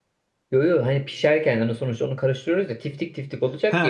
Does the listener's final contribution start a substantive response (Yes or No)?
Yes